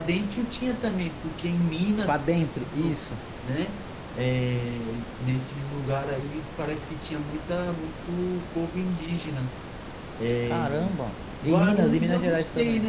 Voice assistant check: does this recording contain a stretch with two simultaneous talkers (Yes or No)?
Yes